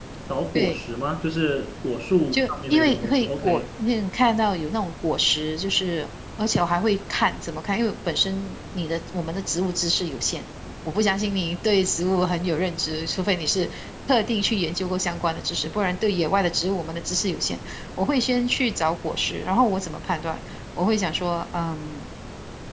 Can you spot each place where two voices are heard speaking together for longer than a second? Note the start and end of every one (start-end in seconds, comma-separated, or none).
2.3-3.6